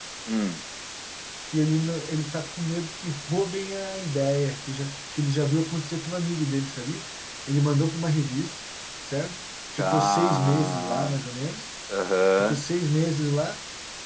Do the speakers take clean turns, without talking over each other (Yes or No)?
No